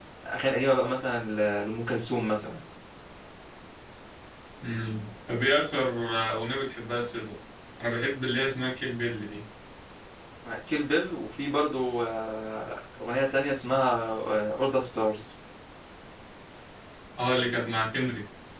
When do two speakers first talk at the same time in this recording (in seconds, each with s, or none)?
none